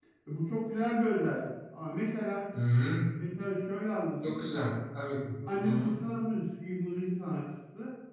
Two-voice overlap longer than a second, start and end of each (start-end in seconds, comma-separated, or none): none